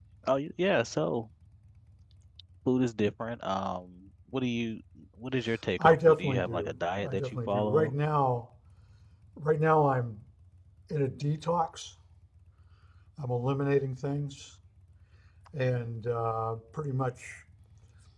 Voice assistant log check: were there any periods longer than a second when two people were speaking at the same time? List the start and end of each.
5.8-7.9

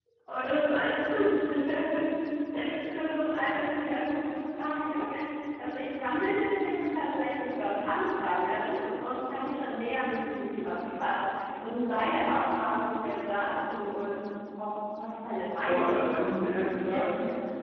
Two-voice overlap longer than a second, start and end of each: 15.7-17.1

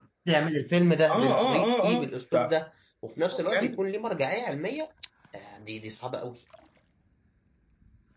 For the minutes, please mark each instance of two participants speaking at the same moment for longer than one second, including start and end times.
1.1-2.6

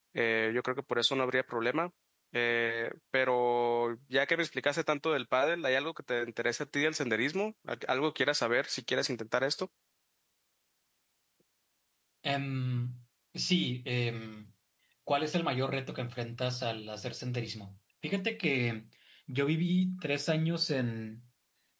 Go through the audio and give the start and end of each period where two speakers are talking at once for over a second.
none

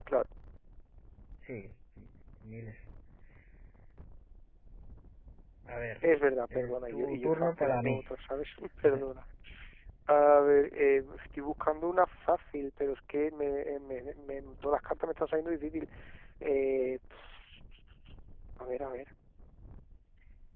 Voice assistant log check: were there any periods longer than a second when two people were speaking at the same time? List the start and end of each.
6.5-8.0

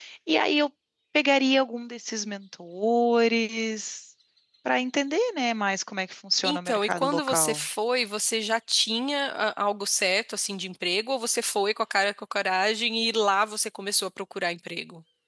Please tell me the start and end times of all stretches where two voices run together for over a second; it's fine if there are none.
6.4-7.6

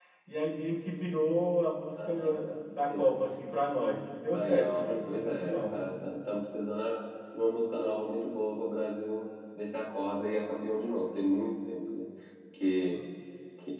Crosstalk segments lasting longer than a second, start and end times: 4.3-5.5

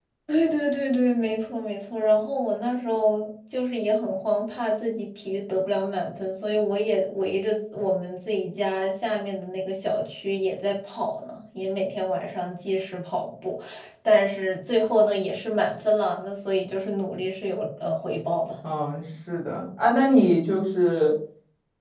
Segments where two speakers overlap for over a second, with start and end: none

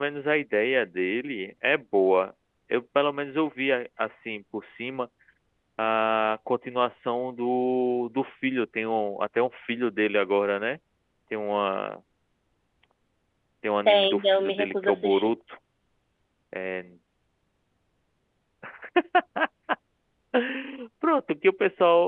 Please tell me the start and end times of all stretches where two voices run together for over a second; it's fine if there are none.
13.8-15.3

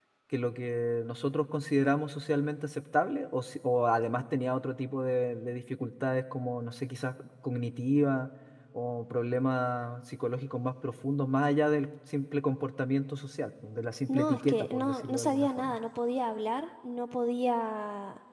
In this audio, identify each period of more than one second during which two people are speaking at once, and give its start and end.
14.1-15.8

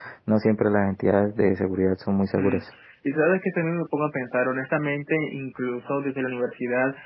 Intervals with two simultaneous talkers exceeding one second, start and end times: none

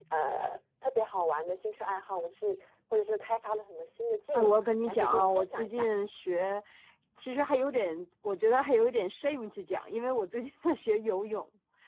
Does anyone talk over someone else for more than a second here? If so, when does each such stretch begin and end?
4.3-5.9

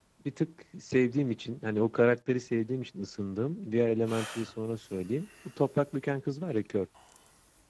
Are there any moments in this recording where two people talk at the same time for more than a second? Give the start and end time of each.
none

